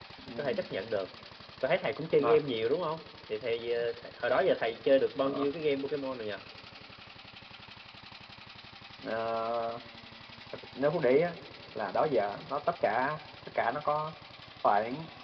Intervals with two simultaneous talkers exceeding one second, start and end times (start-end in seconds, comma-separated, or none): none